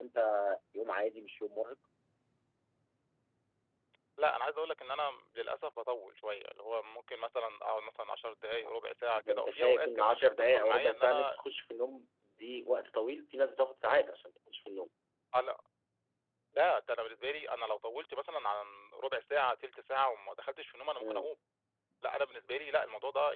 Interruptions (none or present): present